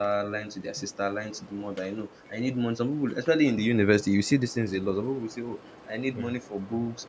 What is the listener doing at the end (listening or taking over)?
listening